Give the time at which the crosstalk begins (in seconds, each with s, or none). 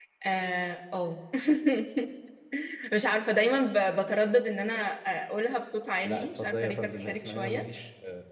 6.0 s